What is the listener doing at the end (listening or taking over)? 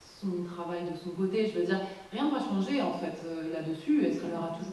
listening